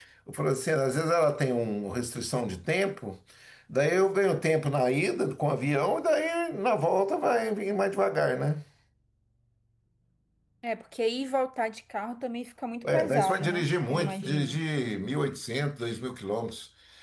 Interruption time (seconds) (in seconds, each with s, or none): 12.8 s